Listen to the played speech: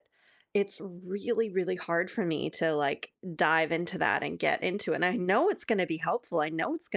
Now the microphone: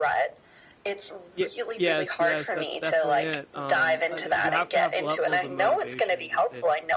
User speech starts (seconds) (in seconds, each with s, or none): 1.4 s